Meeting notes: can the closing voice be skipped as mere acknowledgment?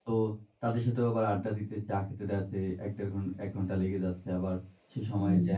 Yes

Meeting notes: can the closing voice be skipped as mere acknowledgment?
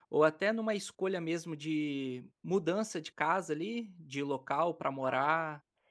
No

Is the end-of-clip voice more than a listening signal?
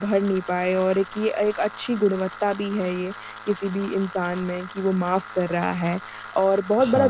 No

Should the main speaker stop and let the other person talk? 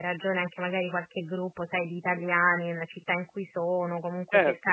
No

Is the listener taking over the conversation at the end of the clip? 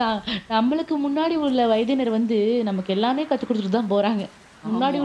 No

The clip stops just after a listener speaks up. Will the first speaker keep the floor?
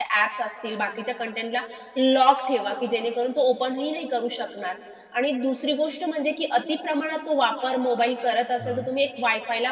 Yes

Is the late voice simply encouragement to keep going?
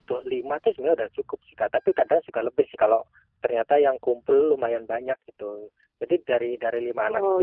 Yes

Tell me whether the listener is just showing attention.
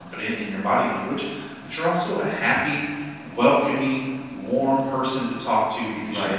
Yes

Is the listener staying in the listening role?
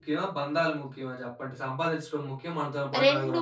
No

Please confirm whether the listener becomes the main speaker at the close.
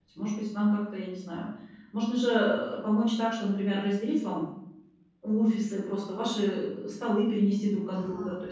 No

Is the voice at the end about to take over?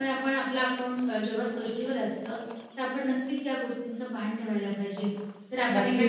Yes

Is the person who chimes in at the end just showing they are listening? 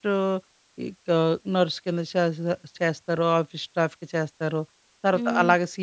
Yes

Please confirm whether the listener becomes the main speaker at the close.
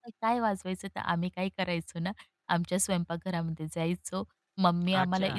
No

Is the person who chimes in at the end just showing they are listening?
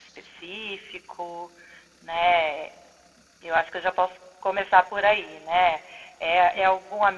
Yes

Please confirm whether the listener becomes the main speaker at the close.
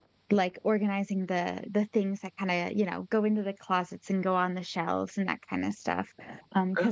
No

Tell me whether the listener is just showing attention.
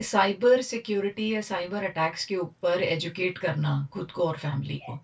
No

